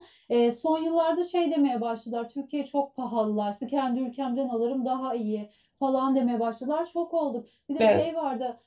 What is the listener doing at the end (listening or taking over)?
listening